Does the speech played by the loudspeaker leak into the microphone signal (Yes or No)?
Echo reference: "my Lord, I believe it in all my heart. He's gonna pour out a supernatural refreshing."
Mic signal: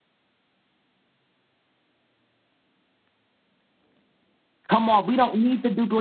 No